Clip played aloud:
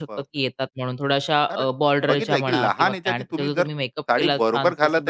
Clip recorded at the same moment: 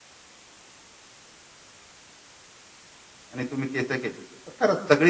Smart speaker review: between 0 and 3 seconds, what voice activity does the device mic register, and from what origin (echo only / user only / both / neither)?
neither